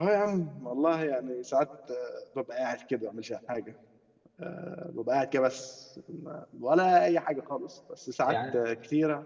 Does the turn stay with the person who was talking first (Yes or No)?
Yes